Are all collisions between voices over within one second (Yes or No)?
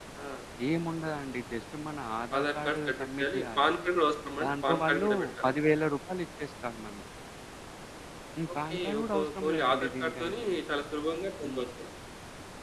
No